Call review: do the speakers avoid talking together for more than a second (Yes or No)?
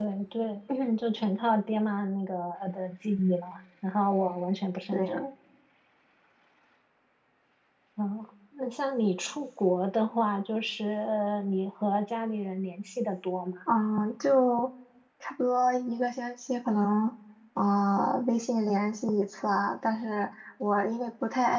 Yes